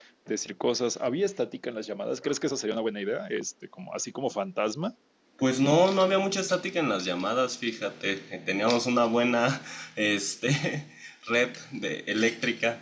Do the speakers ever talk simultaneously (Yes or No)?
No